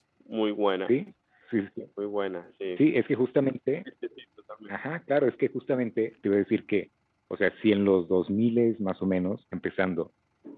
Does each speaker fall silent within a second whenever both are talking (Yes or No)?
Yes